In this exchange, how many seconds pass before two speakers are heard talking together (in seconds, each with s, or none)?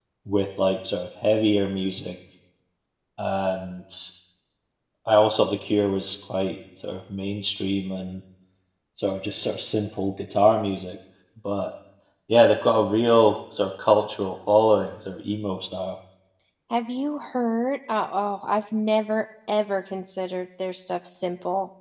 none